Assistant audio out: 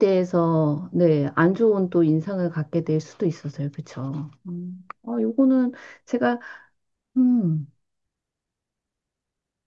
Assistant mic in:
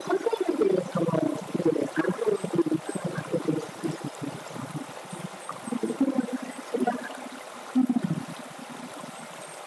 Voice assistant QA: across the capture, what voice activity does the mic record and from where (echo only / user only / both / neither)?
echo only